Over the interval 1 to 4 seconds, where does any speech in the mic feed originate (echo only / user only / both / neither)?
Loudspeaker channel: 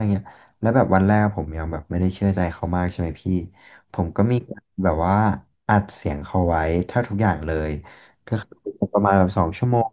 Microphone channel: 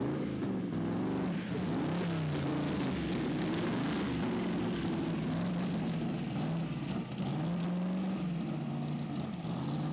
neither